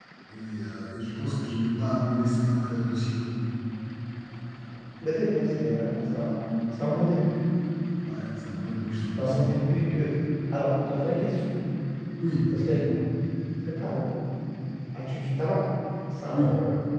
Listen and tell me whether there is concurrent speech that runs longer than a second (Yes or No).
No